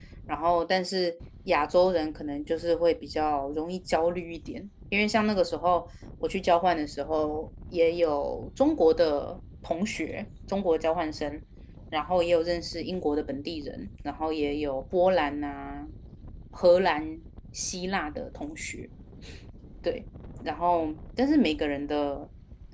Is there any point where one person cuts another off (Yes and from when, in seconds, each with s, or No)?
No